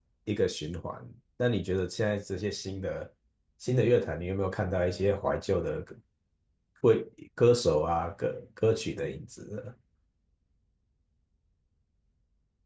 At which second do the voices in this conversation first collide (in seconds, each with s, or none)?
none